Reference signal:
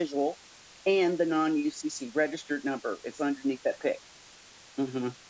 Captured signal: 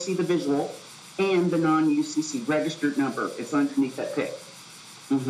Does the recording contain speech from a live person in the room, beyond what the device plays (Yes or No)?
No